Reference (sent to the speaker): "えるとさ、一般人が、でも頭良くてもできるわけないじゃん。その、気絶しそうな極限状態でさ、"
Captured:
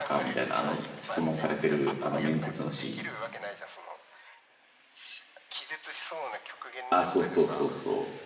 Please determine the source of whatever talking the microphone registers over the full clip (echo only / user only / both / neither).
both